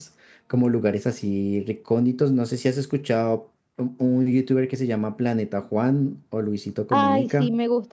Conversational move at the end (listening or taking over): taking over